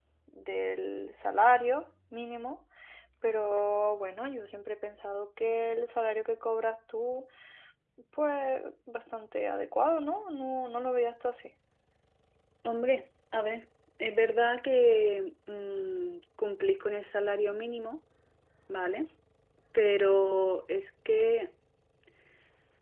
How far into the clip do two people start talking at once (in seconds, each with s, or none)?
none